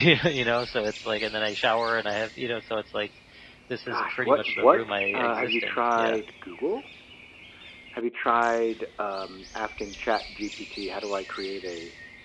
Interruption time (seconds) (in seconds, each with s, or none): 3.9 s